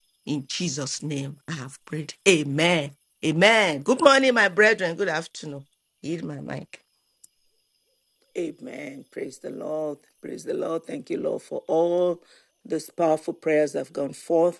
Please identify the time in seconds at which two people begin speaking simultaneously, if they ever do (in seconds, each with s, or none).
none